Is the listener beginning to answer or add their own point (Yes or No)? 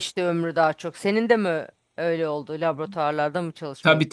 Yes